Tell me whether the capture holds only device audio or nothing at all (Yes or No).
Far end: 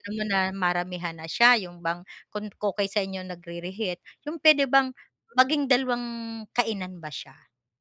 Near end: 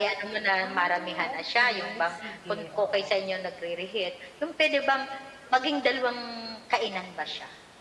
No